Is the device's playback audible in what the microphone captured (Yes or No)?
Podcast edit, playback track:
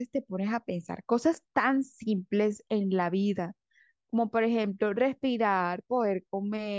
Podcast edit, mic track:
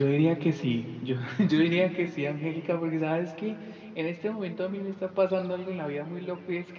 No